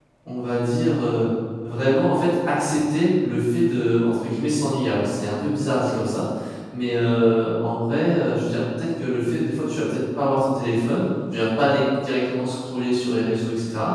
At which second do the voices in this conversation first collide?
none

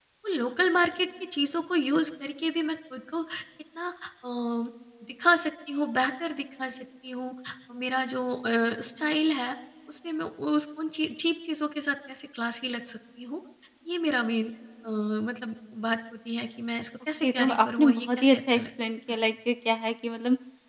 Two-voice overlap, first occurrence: 17 s

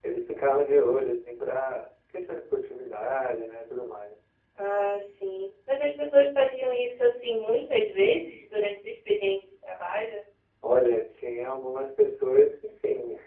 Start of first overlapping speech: none

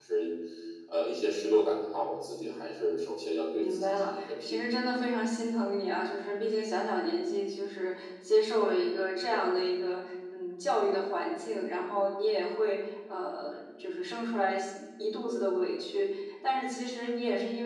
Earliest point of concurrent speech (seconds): 4 s

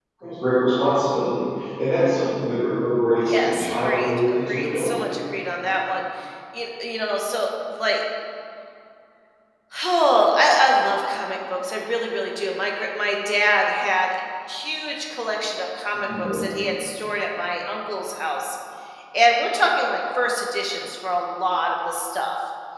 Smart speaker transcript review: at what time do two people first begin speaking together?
3 s

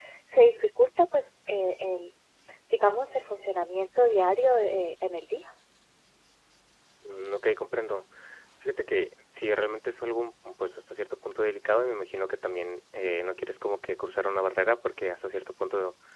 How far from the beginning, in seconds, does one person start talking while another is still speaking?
none

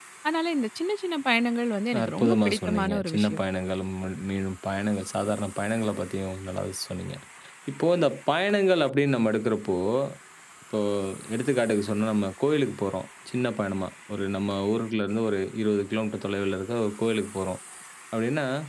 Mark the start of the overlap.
2 s

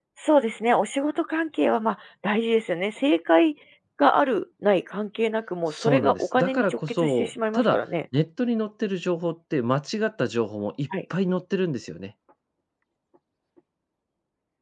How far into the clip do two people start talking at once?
6 s

